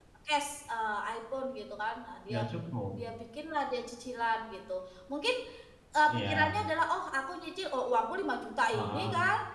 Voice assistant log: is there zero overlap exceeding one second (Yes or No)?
Yes